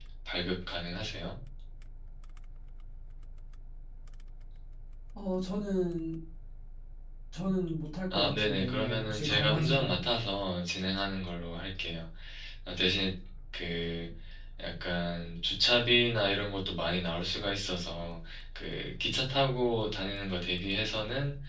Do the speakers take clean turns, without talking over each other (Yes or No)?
No